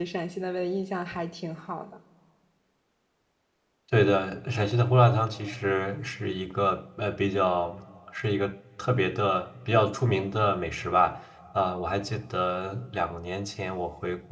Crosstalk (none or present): none